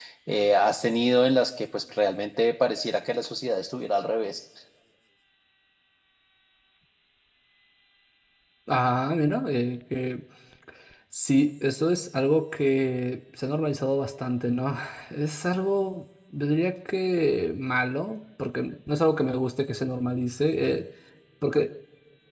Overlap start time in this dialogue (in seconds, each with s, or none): none